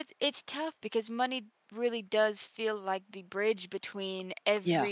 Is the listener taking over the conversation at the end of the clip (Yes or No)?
No